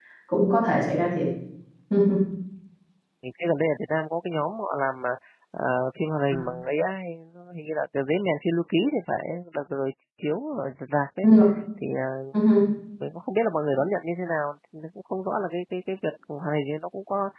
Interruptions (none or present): none